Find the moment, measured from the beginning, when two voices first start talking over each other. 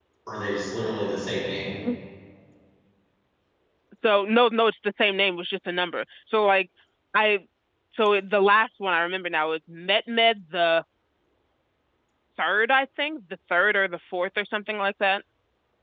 none

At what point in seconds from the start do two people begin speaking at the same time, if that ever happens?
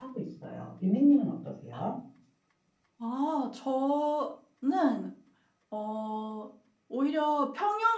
none

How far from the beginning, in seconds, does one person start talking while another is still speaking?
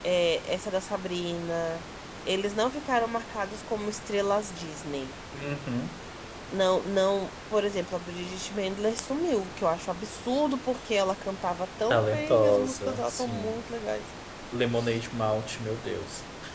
11.9 s

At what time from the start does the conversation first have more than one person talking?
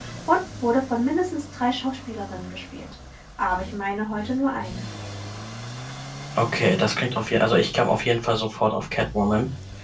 none

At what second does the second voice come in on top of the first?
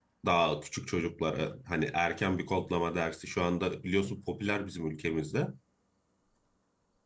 none

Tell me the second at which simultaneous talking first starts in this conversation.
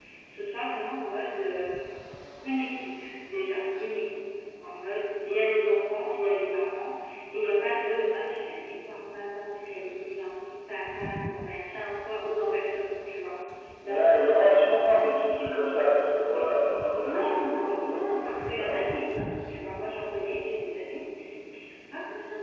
17.0 s

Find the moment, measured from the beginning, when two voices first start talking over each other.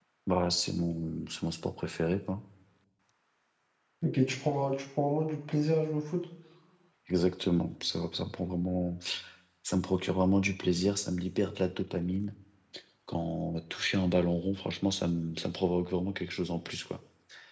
none

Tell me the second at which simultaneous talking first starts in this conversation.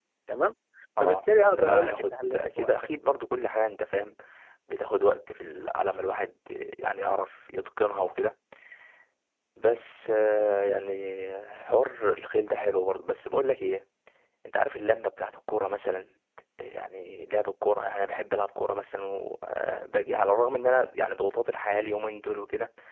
1.0 s

